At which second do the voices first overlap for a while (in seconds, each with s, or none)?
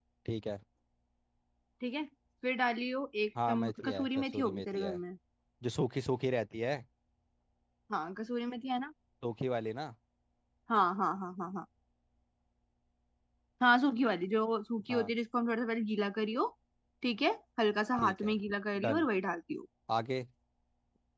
3.5 s